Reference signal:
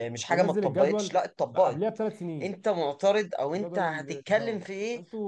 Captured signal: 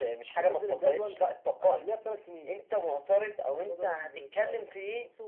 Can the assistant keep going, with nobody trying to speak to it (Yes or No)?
Yes